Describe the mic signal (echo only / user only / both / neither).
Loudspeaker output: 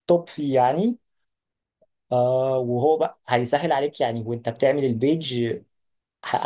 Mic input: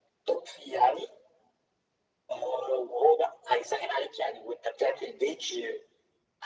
echo only